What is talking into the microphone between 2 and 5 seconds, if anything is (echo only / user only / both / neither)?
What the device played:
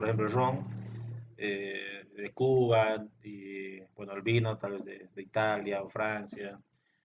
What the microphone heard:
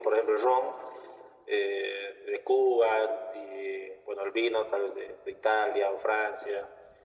echo only